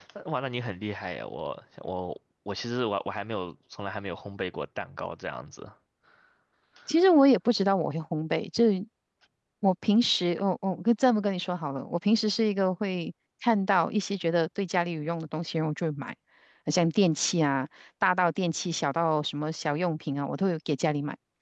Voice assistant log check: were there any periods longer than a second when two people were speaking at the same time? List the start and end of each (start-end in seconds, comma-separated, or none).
none